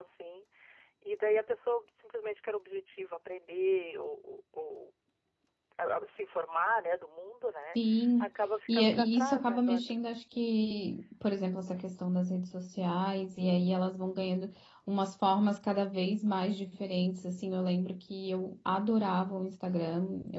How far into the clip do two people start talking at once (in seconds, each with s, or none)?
8.7 s